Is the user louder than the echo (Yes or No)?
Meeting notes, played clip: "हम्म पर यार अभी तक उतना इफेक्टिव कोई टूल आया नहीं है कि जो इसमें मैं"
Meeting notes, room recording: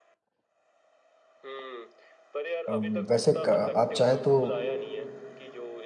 Yes